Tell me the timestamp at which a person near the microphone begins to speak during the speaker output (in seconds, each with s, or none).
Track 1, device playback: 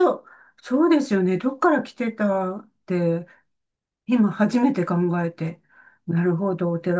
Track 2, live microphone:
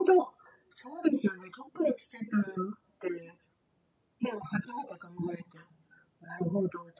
none